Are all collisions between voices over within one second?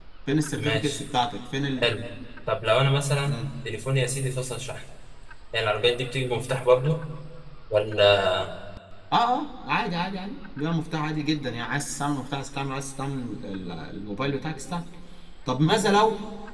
Yes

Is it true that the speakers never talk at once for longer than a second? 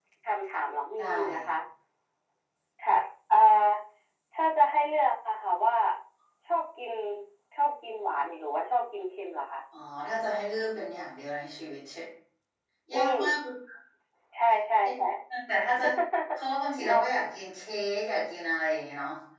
Yes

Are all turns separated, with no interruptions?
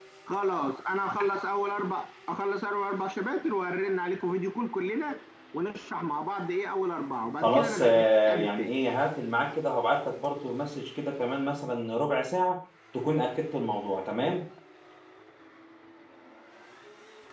No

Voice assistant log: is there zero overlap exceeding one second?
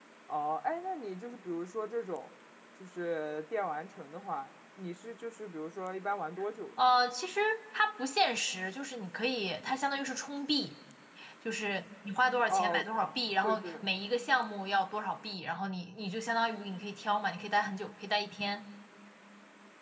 Yes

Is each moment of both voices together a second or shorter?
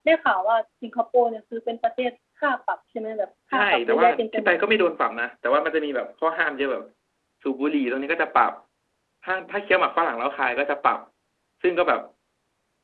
No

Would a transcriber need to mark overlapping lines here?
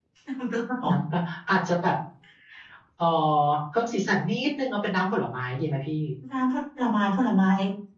No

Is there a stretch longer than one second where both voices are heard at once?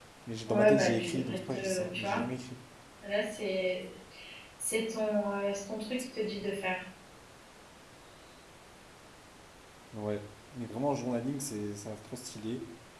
Yes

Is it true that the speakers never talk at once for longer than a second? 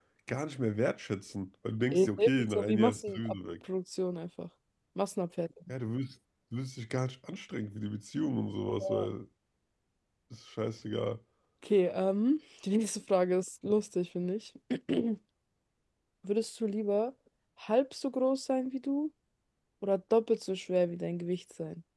No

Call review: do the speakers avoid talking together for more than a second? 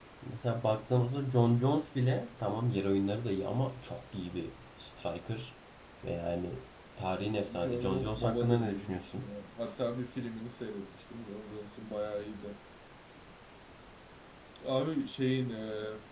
No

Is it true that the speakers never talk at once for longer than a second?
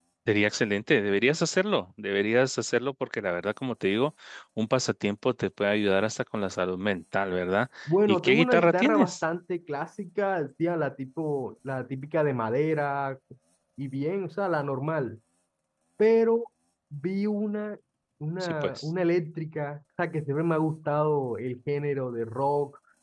No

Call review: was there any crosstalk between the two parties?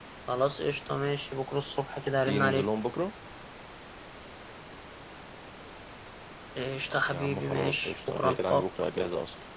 Yes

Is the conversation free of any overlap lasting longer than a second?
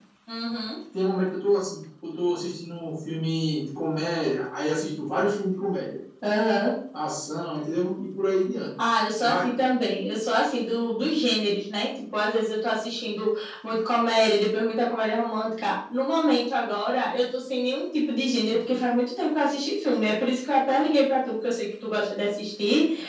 Yes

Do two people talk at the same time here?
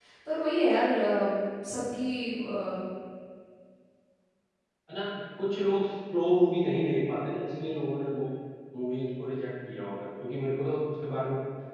No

